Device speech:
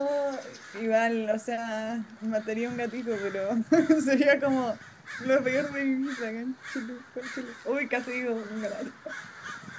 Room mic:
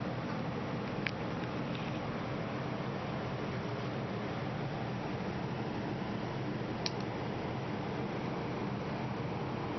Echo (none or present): none